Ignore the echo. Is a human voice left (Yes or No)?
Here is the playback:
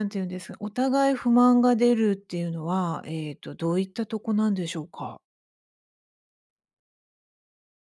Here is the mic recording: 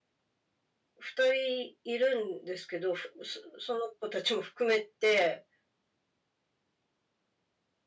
Yes